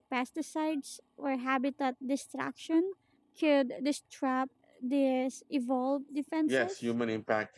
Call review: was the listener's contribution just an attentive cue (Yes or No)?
No